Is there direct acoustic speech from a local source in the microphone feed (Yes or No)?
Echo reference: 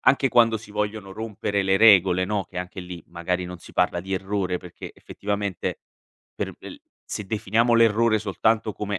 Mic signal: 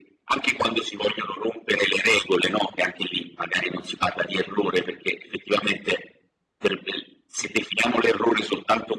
No